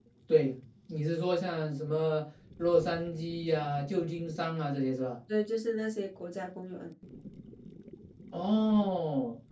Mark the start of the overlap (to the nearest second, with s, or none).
none